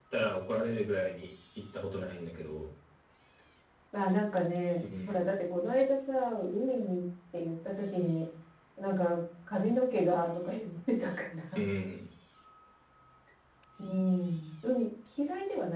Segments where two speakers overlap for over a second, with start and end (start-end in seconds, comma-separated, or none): none